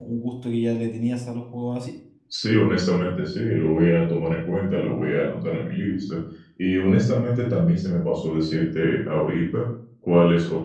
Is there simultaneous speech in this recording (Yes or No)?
No